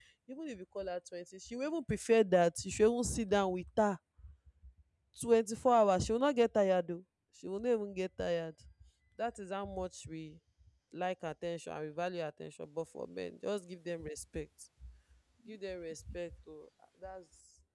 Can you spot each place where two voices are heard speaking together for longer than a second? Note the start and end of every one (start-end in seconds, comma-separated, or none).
none